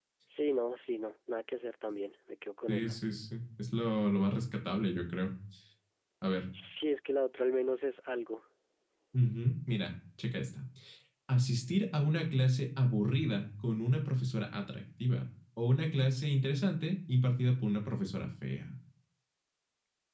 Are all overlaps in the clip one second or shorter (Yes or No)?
Yes